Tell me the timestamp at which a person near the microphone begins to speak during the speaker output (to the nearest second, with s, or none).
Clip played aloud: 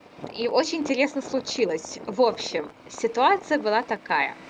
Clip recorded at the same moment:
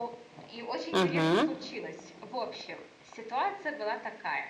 1 s